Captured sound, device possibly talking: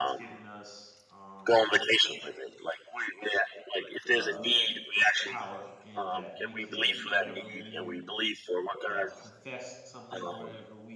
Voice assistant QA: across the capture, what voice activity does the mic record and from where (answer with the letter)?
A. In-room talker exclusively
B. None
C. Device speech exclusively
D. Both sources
D